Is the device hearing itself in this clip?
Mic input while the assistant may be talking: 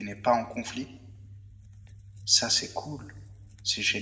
No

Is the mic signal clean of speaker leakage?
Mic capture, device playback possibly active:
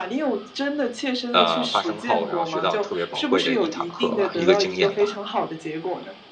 No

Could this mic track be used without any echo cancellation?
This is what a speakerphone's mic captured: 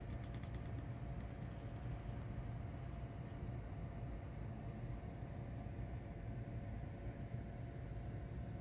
Yes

